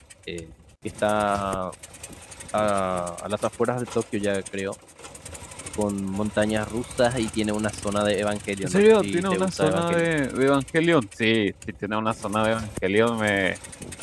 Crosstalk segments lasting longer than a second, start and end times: 8.6-10.1

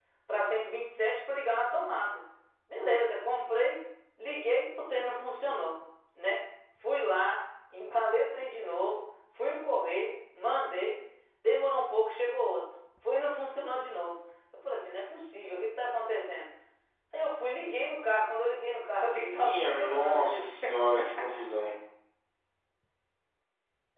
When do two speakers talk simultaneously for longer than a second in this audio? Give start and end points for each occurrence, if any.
19.2-20.5

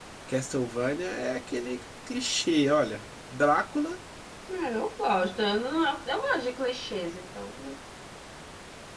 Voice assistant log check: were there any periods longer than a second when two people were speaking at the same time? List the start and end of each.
none

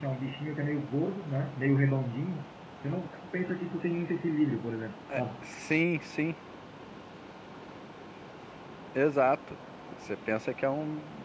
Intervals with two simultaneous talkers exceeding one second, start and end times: none

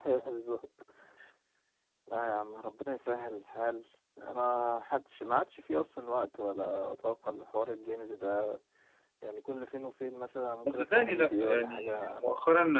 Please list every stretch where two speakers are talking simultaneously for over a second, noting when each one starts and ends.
10.6-12.3

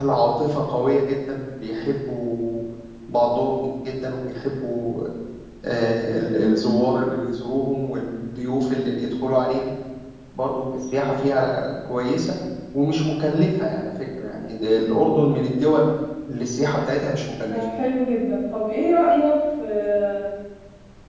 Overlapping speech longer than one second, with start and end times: none

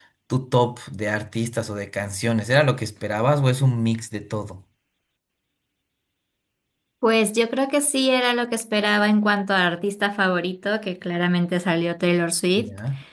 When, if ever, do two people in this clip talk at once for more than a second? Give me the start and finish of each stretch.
none

